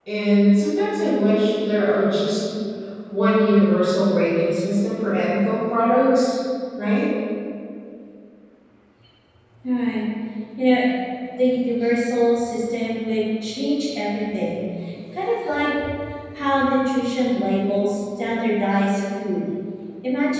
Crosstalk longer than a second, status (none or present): none